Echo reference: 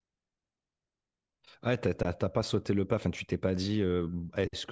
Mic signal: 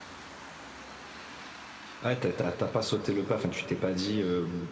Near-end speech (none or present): none